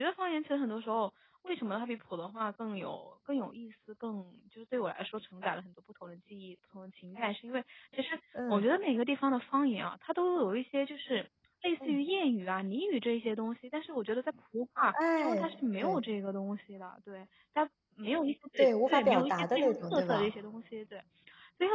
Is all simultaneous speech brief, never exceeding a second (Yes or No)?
No